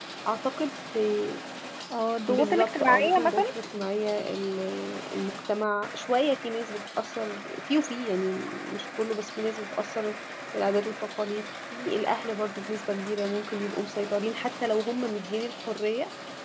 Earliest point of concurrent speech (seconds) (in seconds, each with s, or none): 2.3 s